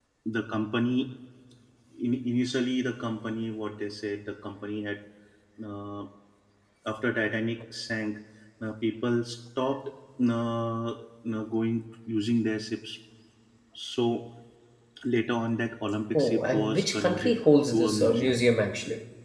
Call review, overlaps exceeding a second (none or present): present